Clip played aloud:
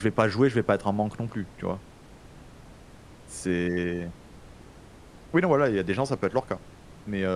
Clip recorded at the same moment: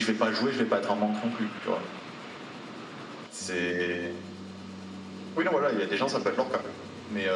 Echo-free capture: No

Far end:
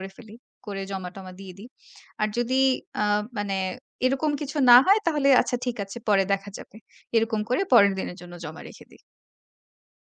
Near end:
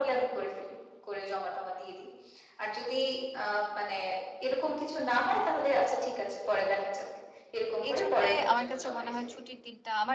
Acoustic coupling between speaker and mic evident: Yes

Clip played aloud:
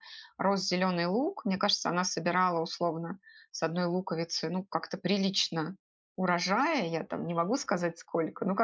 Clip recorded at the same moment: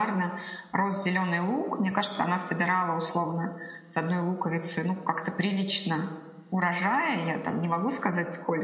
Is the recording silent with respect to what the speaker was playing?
No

